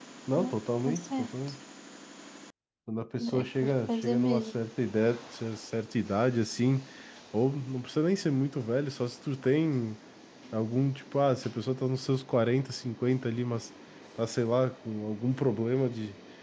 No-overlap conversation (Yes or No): No